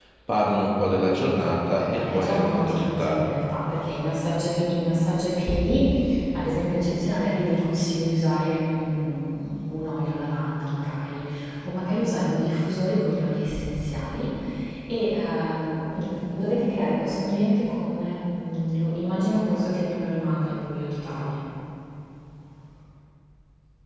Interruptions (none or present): present